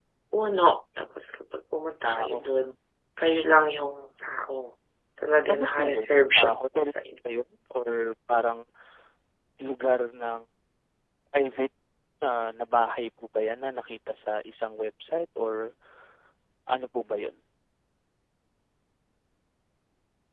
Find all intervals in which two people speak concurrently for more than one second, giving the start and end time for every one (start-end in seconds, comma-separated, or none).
5.5-6.9